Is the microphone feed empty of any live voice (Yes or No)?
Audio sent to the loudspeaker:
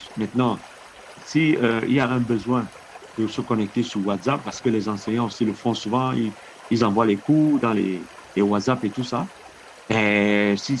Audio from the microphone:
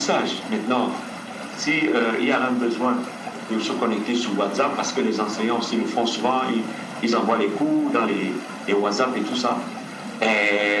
Yes